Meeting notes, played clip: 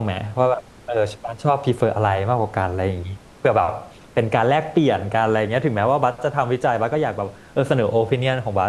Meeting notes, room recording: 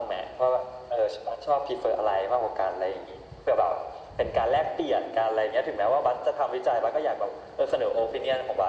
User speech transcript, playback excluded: none

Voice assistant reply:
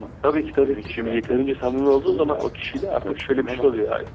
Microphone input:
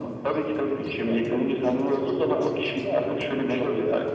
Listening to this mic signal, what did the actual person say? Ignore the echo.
none

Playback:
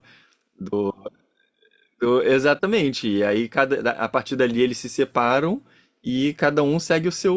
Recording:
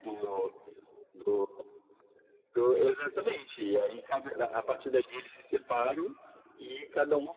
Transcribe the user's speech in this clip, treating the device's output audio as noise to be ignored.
none

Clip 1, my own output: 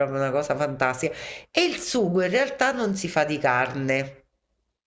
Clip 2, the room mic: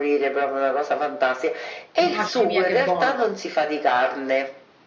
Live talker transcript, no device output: Mamma mia che buona,

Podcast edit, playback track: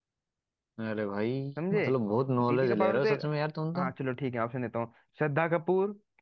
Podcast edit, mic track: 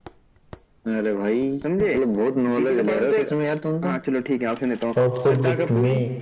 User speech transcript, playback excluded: ऑपोजिट में

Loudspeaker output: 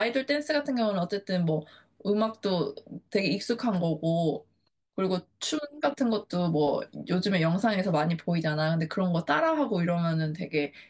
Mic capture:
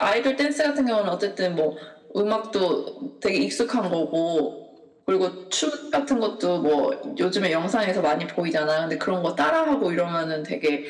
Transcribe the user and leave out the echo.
none

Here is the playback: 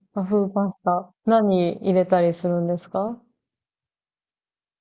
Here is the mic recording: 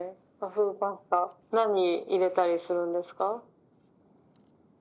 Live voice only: none

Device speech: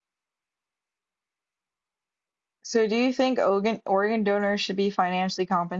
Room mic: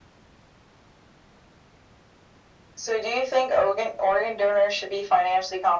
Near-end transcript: none

